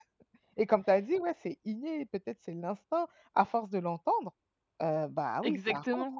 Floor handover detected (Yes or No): Yes